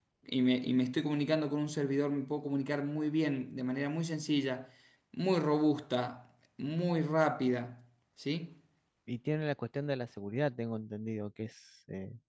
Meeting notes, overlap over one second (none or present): none